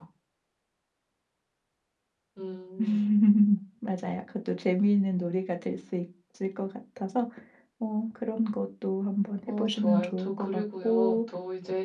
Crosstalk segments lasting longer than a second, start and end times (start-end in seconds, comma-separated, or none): 9.5-11.2